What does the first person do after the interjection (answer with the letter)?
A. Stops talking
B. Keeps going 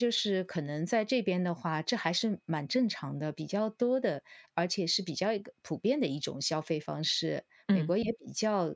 B